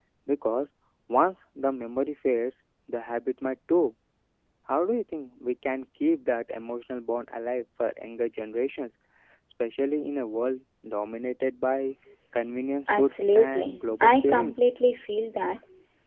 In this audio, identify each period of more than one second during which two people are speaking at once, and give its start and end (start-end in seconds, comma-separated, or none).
13.0-14.6